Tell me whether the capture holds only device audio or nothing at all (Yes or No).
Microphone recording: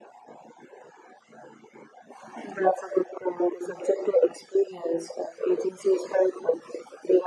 Yes